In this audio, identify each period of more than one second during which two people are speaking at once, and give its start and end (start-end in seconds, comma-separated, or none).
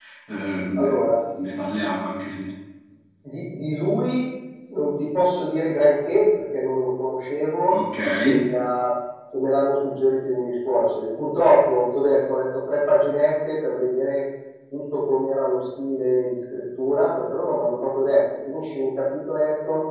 none